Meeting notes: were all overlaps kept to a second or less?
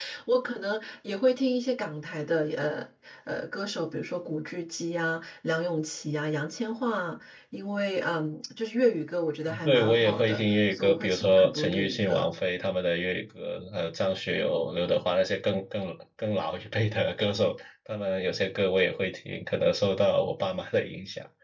No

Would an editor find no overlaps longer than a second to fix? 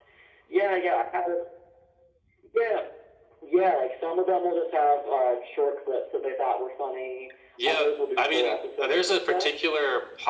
No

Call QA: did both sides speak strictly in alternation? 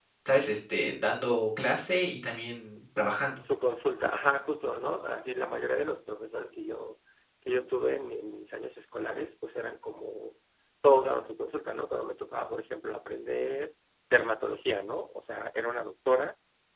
Yes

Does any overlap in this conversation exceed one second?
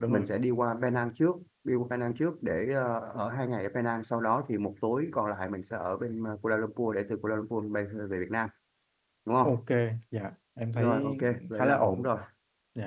Yes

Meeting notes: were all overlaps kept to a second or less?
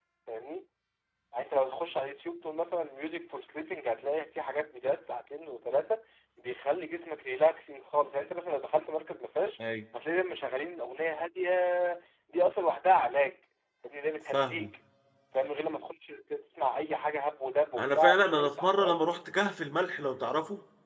No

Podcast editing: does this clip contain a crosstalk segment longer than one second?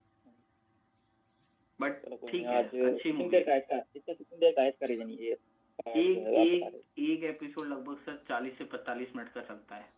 Yes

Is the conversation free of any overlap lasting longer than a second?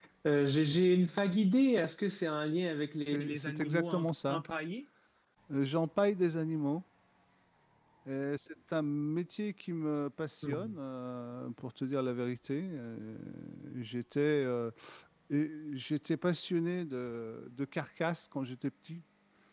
No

